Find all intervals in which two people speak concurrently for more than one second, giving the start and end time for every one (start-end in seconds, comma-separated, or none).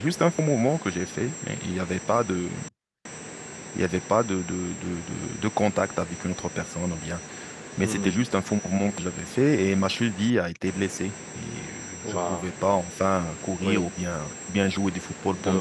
none